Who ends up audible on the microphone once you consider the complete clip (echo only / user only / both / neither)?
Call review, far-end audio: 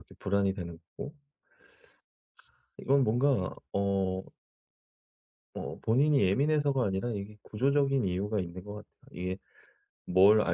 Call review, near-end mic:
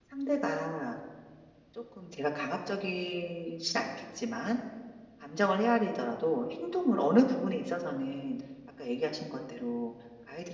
user only